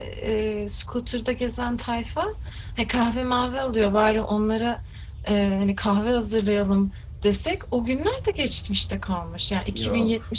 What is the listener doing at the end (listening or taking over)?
listening